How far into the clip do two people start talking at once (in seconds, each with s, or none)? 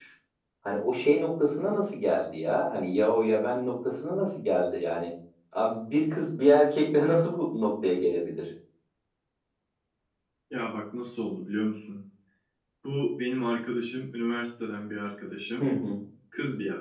none